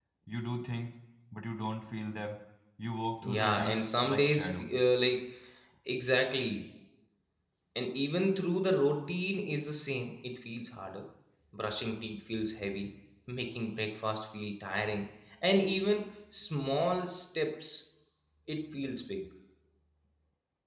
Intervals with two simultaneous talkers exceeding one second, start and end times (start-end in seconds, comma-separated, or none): 3.2-4.7